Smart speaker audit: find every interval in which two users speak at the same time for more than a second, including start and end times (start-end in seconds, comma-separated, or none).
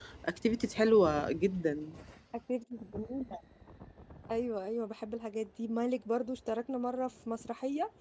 none